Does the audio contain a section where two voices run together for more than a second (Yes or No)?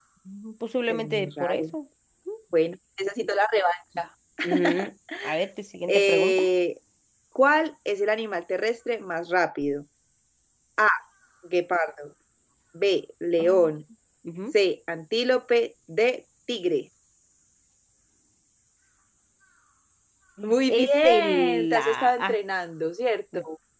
Yes